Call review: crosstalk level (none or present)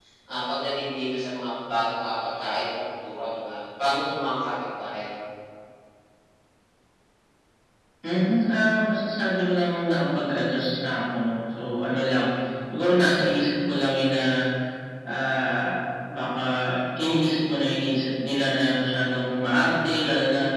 none